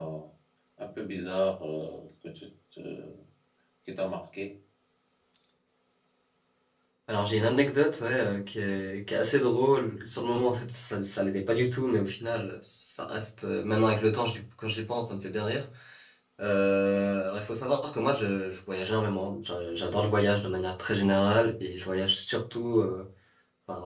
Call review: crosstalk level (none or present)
none